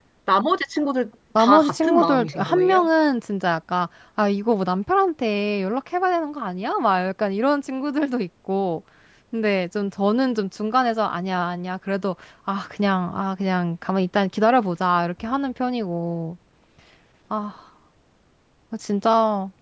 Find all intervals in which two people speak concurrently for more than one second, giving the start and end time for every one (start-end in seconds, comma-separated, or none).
1.4-2.9